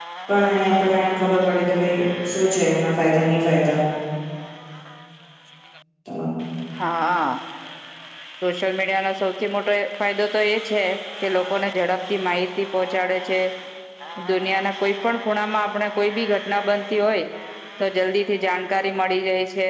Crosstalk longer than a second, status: none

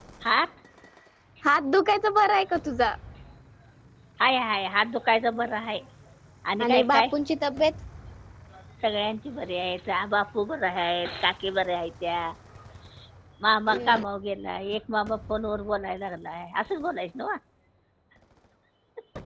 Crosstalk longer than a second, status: none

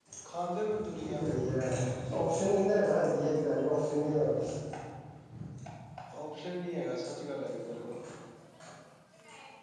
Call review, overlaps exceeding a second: none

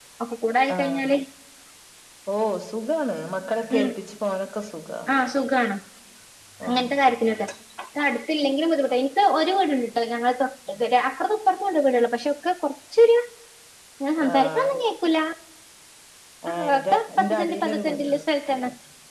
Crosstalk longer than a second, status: present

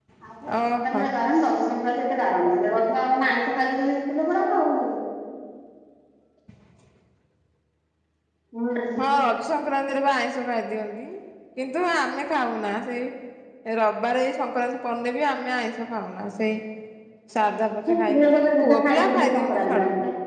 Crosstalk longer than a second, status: present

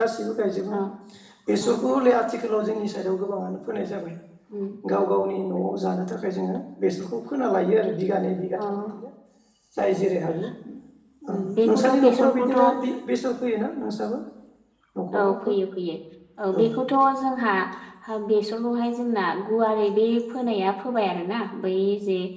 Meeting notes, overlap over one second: present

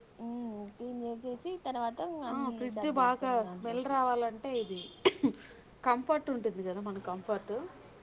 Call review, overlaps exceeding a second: present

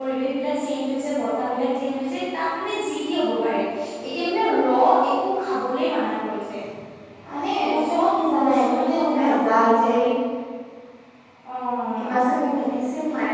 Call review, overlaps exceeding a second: present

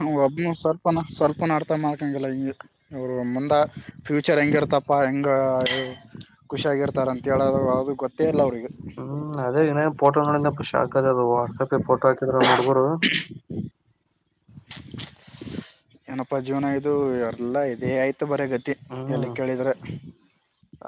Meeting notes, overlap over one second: none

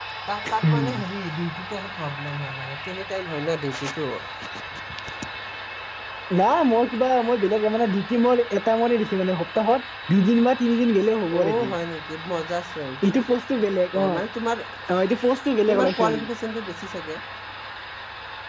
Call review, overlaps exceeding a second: none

